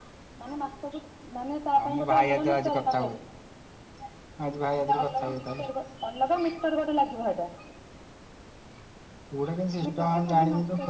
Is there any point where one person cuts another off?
Yes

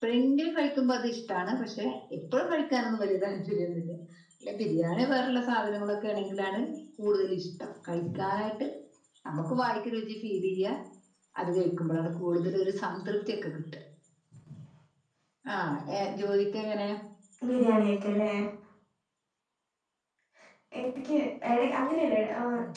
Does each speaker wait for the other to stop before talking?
Yes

